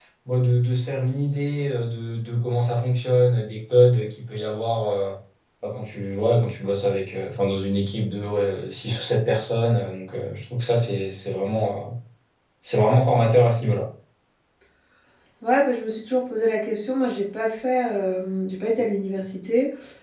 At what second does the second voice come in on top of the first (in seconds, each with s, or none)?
none